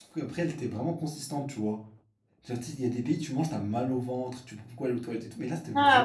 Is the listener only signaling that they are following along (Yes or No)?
No